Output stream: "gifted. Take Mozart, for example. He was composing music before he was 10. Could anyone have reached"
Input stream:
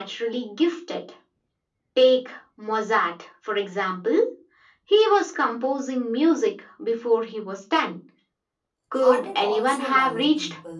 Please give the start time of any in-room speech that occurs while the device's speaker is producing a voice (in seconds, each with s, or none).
8.9 s